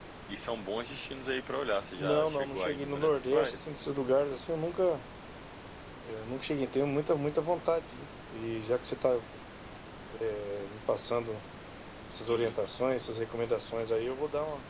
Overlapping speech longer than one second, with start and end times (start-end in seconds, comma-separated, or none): 2.0-3.6